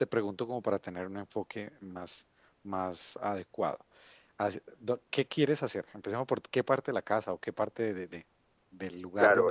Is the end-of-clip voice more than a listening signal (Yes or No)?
Yes